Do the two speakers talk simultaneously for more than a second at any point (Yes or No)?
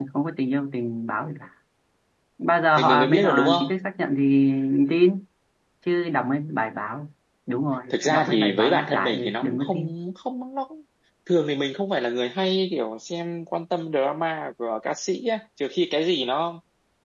Yes